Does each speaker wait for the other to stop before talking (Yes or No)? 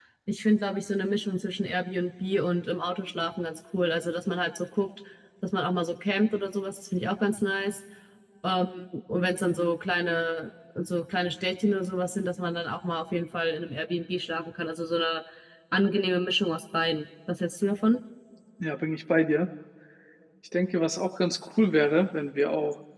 Yes